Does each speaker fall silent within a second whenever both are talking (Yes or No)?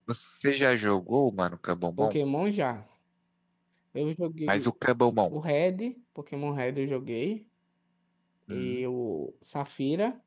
Yes